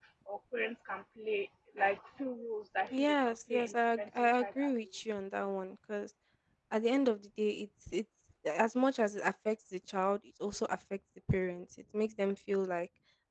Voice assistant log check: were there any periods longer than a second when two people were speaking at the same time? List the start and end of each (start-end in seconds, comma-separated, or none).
2.9-4.7